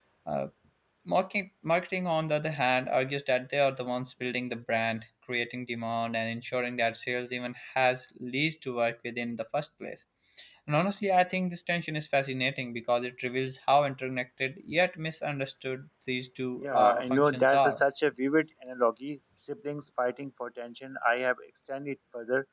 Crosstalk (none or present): present